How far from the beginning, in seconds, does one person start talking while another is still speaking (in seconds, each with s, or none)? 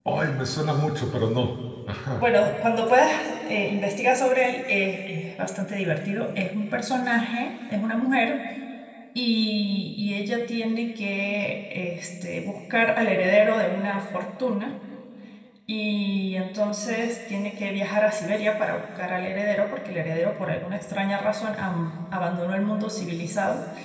none